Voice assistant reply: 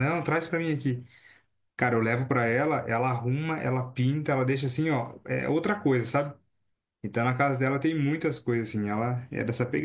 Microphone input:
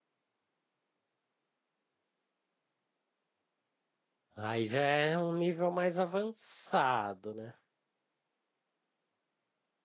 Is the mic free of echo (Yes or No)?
Yes